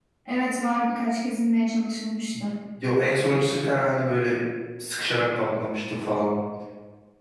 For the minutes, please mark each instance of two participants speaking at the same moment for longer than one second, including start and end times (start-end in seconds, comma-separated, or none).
none